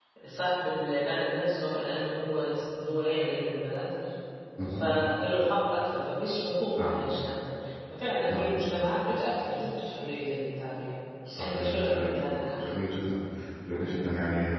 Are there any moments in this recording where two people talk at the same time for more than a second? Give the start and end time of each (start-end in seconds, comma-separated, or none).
11.4-12.8